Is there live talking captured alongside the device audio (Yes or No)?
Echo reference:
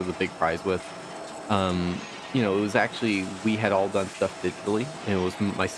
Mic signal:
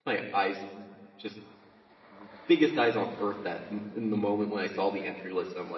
Yes